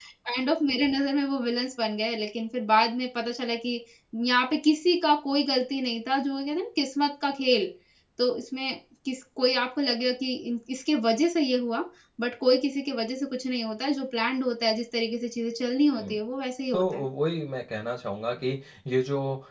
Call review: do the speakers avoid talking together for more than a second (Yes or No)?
Yes